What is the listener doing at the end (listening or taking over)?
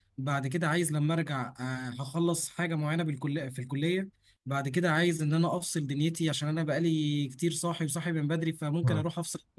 listening